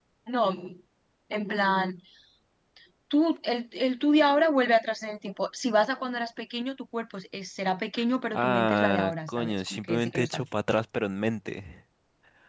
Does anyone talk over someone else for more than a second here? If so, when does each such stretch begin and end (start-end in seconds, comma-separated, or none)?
8.3-10.5